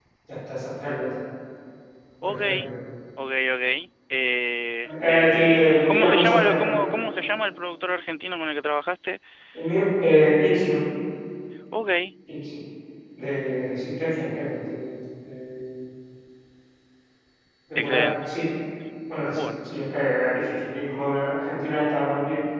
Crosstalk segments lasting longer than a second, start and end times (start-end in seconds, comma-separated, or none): 5.1-6.8